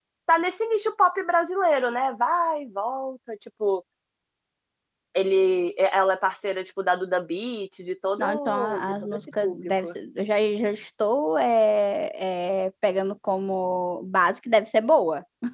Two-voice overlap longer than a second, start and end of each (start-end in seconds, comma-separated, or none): 8.2-9.9